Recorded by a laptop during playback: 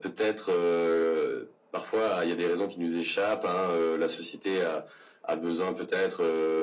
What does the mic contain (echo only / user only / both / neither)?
echo only